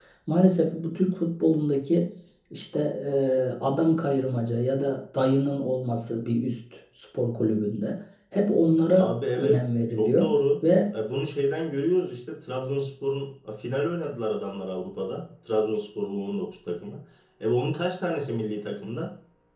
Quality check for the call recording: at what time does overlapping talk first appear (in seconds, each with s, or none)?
9.0 s